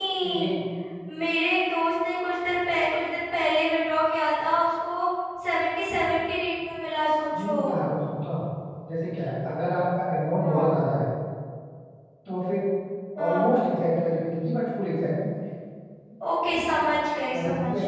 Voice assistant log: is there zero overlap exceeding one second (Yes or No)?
Yes